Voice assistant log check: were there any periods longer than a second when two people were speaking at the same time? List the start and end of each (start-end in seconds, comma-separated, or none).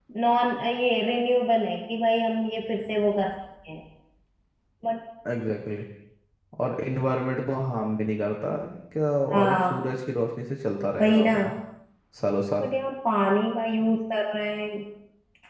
none